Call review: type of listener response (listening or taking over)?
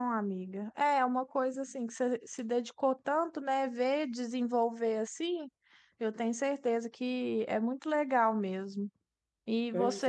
listening